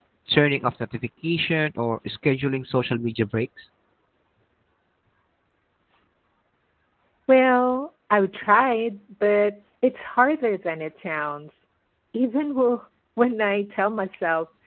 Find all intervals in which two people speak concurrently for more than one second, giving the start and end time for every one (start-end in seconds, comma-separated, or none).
none